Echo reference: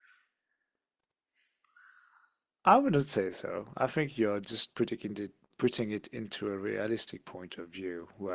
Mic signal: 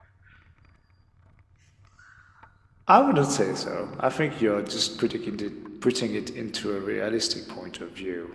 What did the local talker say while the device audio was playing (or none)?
none